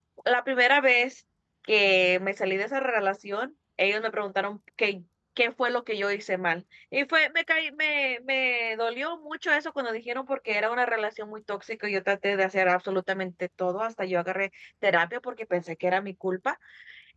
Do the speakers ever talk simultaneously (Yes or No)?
No